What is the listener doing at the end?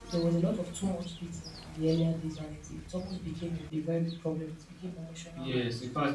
taking over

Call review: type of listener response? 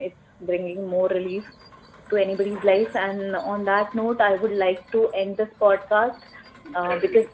listening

